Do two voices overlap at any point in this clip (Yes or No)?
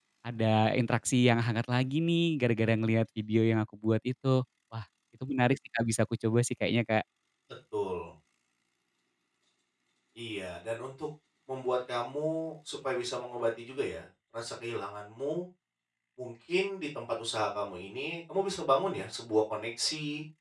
No